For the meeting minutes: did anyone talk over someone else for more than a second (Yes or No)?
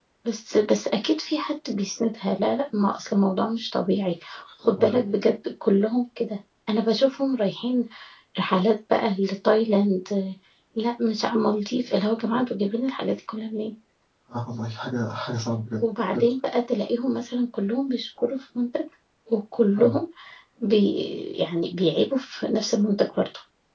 No